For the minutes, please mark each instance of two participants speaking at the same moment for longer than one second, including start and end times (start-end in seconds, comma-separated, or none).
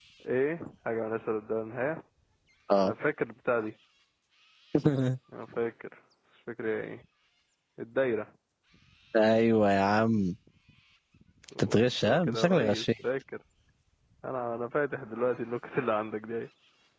11.6-12.8